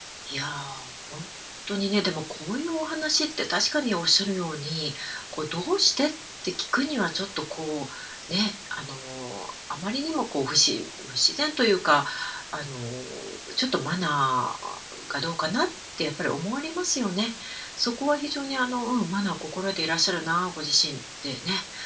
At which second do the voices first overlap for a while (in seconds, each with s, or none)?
none